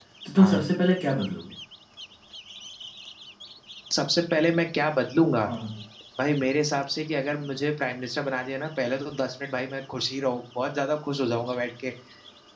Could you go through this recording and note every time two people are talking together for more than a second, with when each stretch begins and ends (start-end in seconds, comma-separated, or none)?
none